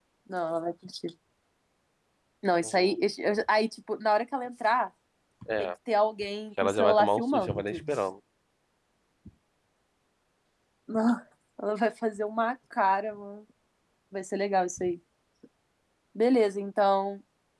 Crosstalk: present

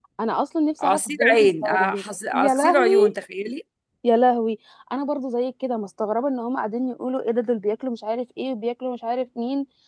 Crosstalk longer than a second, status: present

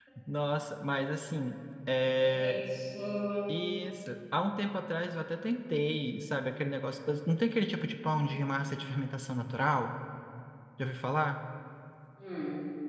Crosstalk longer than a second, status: none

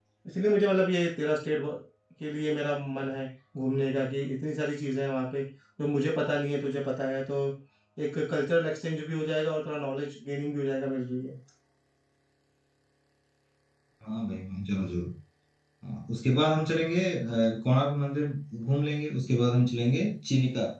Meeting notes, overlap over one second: none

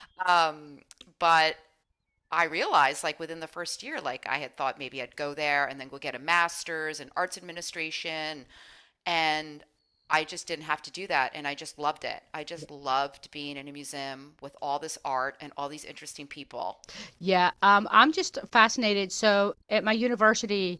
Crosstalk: none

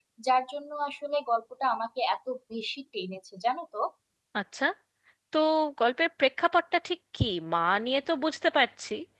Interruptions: none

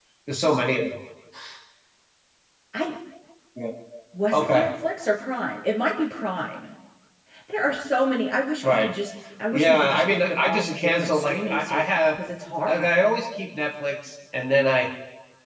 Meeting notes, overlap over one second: present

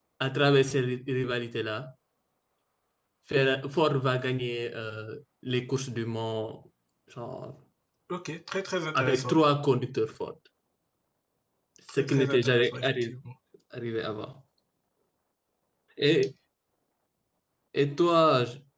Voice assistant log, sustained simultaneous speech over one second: present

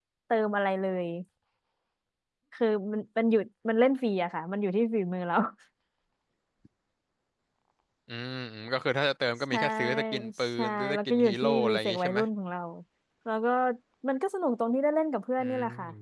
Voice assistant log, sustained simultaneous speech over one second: present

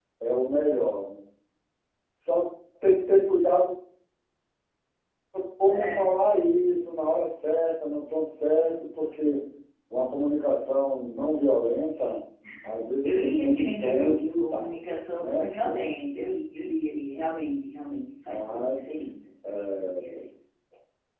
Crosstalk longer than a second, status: present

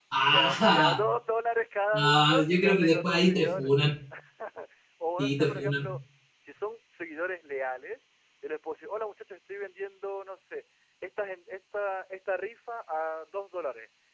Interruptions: present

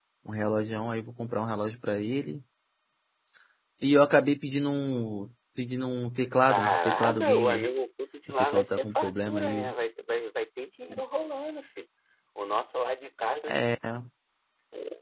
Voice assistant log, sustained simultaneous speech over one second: present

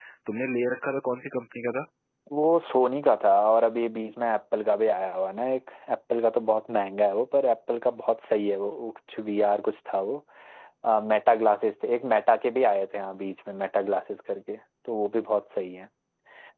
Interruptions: none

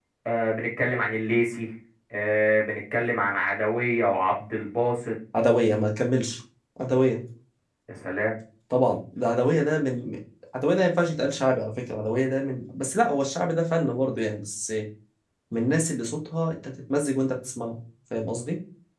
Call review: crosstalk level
none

